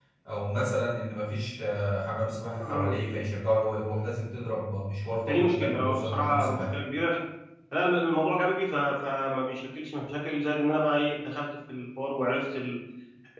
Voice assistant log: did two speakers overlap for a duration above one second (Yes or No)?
Yes